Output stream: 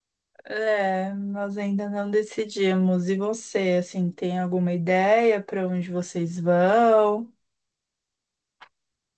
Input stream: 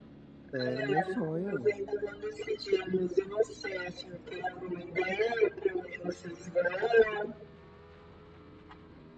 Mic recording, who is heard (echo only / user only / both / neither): both